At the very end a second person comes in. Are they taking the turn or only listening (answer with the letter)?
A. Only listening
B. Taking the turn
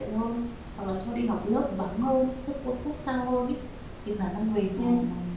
A